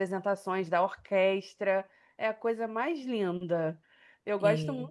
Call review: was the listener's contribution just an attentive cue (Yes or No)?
Yes